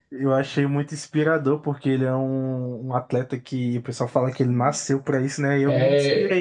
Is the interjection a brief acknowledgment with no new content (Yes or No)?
Yes